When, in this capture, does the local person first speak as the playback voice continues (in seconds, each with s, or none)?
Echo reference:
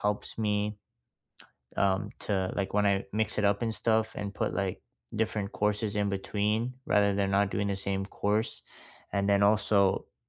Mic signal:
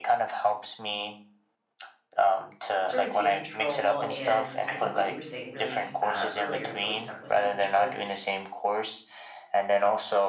2.8 s